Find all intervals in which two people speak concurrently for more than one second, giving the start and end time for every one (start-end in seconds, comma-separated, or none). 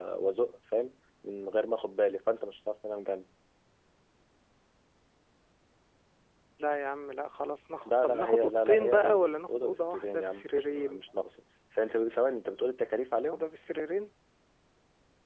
7.8-11.0